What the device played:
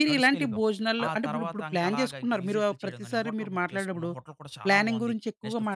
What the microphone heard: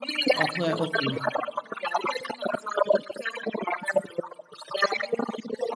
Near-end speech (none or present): present